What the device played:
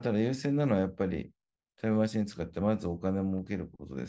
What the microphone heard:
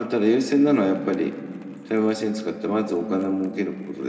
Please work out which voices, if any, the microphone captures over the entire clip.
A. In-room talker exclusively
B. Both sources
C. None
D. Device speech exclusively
D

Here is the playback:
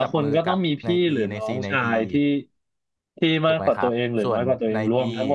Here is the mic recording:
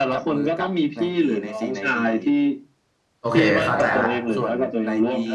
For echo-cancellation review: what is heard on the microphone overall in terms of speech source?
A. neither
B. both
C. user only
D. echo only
B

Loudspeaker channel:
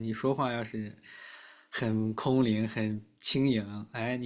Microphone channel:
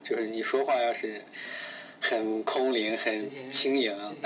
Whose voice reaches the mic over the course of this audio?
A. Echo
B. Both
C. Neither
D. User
B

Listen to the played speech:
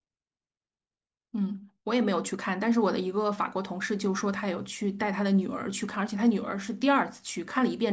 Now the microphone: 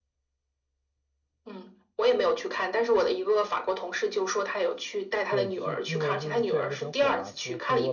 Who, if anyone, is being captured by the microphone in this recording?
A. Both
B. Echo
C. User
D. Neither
A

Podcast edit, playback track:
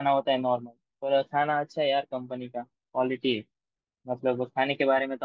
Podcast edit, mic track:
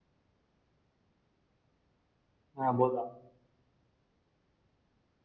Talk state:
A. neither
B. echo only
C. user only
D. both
C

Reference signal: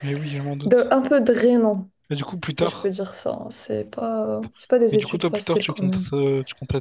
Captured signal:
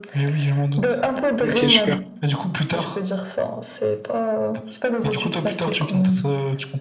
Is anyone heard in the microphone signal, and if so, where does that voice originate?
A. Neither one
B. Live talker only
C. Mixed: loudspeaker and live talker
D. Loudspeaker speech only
C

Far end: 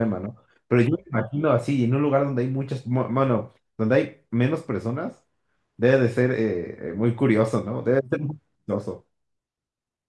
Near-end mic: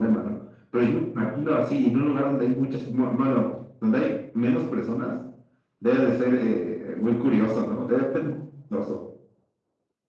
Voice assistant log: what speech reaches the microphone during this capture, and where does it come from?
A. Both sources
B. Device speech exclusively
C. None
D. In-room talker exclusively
B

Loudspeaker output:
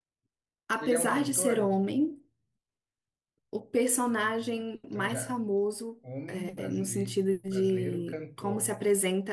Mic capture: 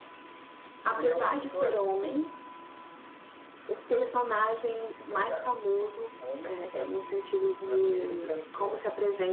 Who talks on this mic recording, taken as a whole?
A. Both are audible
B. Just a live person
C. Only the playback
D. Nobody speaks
C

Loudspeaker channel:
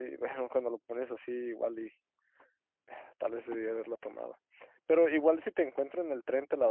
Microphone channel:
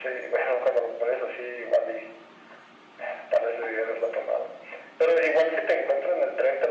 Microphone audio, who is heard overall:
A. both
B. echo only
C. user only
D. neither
B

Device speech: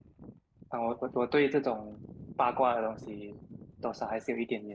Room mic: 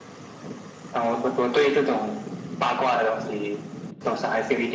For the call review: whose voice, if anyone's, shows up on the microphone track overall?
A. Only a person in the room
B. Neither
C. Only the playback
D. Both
C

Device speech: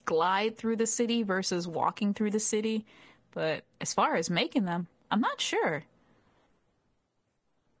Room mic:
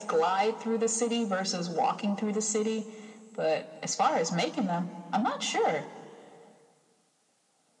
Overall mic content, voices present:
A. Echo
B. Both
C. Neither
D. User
A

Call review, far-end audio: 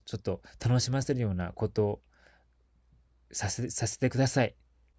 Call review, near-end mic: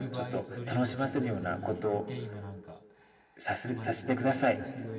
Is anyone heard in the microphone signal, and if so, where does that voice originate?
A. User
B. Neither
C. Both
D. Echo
C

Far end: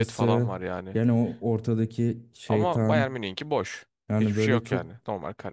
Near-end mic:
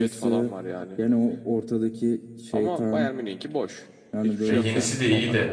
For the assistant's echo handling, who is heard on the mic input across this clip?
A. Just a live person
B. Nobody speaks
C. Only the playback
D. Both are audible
D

